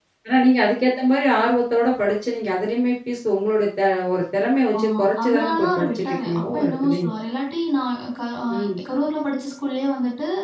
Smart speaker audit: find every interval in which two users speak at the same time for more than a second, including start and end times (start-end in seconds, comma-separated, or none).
4.8-7.1